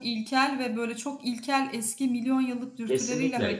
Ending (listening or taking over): taking over